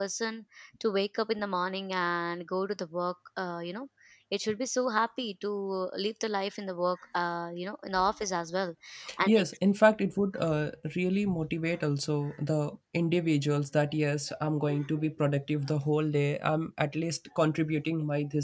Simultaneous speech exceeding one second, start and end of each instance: none

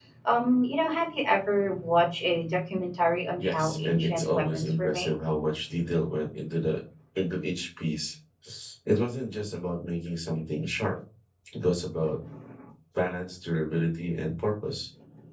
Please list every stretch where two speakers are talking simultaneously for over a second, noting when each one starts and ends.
3.4-5.2

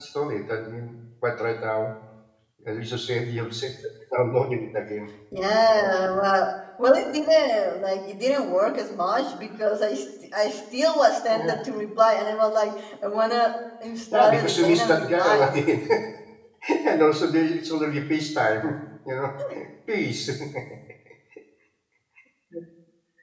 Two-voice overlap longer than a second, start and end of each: 14.1-15.5

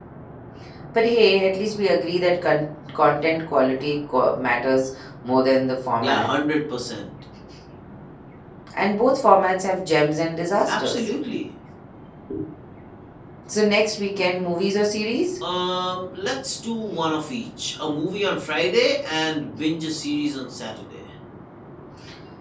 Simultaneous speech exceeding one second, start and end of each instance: none

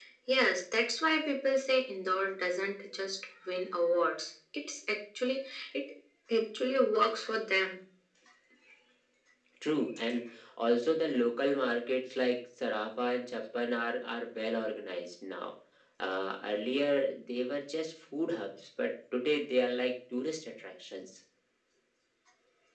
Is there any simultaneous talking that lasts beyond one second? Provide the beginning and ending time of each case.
none

